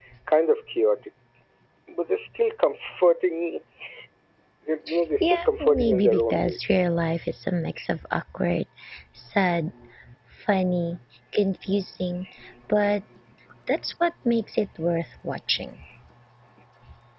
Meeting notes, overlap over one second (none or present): present